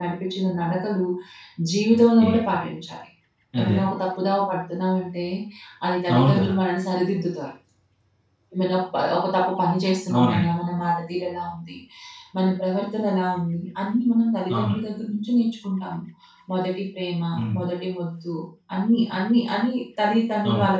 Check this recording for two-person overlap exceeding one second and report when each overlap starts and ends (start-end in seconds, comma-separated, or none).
none